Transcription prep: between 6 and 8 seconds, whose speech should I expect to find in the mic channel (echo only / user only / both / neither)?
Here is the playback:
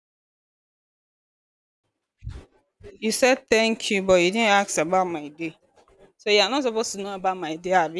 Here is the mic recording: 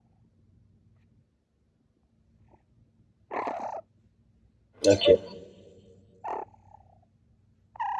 neither